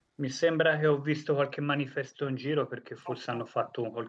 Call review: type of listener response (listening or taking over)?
listening